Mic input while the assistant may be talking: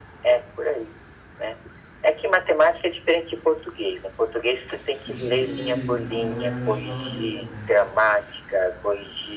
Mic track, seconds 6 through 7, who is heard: both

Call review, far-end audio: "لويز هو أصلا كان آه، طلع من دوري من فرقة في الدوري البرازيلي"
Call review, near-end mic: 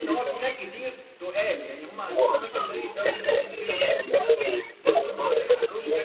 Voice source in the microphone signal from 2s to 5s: both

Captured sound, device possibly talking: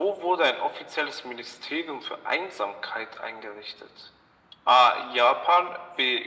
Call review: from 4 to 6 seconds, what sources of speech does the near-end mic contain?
echo only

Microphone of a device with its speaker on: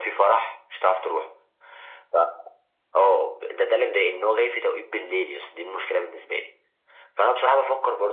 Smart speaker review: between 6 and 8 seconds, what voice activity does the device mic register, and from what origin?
echo only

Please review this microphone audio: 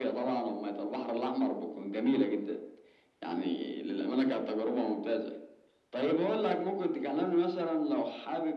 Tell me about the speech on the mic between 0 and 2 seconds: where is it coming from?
echo only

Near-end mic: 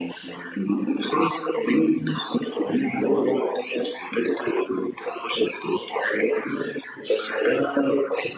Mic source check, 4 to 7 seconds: echo only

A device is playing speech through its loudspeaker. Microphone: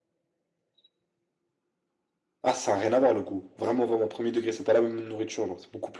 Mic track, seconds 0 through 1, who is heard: neither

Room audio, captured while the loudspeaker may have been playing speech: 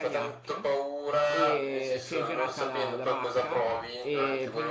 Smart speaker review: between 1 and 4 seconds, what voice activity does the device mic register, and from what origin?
both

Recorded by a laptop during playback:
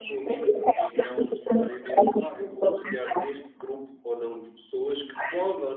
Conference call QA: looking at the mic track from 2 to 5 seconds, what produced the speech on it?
both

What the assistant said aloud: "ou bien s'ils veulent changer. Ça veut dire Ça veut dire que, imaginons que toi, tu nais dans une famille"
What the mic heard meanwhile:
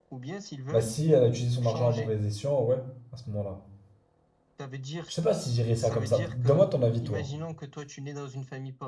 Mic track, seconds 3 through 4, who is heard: user only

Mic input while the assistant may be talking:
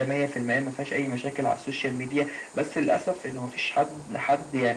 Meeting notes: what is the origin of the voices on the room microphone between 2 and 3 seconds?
echo only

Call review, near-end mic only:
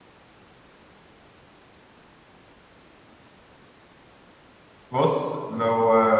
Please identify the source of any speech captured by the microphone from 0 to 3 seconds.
neither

